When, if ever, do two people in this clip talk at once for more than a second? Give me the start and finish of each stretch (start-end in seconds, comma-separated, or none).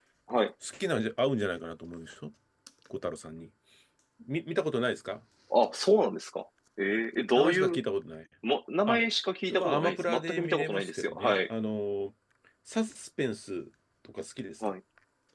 9.5-11.4